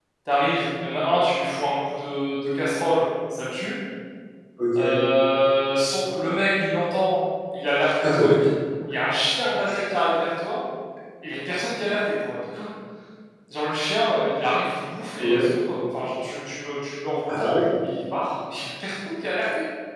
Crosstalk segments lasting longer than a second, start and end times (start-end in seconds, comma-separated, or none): none